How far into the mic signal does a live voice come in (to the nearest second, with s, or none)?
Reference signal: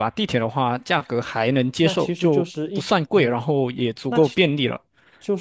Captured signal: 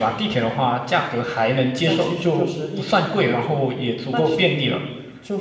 none